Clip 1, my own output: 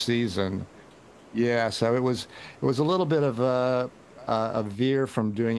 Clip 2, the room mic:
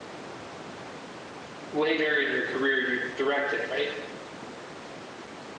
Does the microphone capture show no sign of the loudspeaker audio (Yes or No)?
Yes